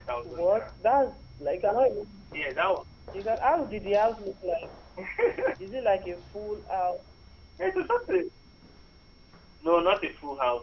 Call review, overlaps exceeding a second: none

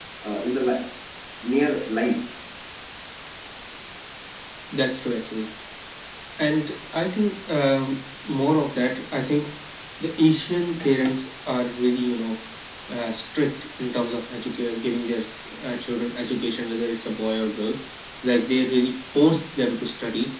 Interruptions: none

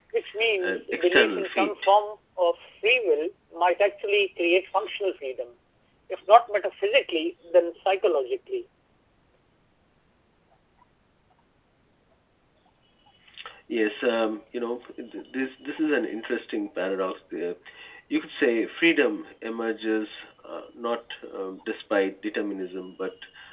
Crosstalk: present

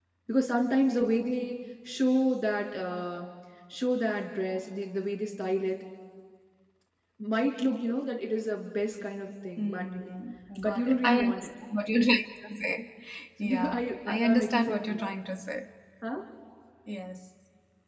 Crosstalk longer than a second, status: present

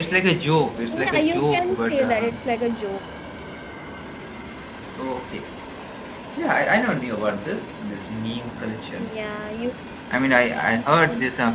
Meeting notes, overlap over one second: present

